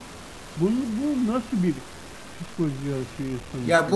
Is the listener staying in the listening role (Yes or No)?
No